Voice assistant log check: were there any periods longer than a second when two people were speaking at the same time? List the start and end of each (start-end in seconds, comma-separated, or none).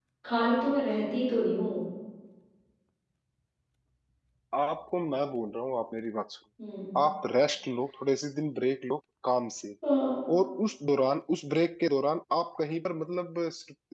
none